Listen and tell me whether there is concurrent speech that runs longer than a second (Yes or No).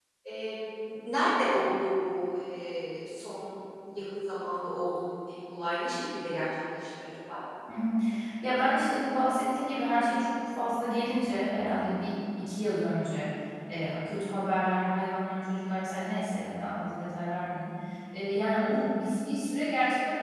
No